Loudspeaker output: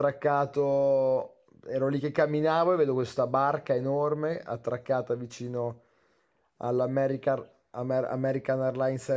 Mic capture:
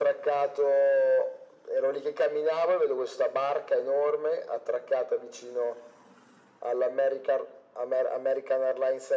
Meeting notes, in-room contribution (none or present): none